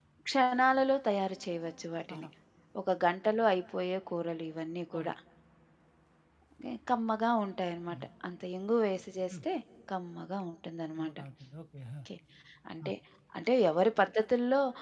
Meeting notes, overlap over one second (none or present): none